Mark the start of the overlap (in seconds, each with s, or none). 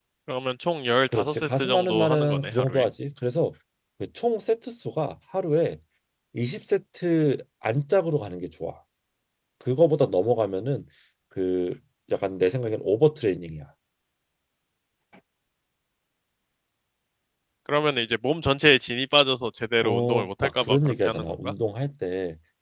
1.1 s